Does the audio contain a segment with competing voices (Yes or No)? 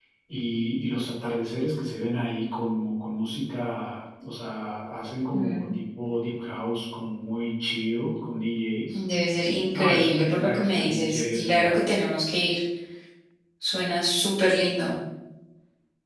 Yes